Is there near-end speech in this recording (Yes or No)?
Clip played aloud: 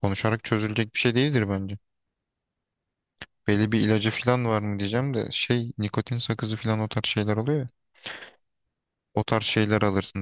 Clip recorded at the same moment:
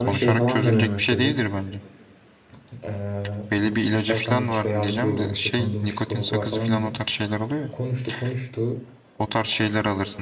Yes